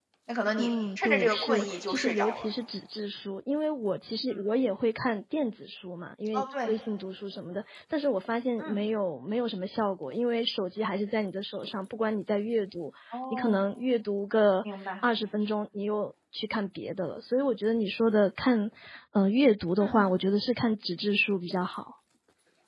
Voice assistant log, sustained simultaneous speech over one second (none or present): present